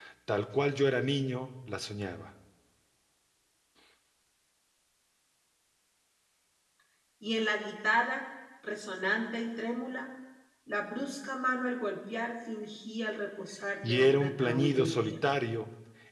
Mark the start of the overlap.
13.8 s

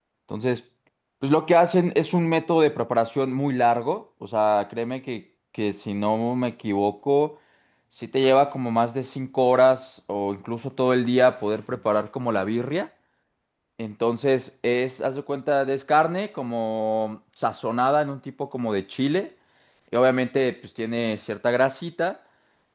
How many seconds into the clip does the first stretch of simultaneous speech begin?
none

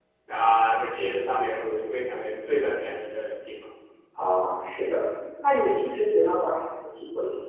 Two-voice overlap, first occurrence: none

